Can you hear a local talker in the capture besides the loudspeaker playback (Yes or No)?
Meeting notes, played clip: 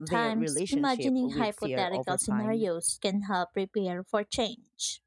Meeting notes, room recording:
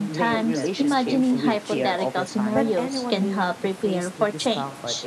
Yes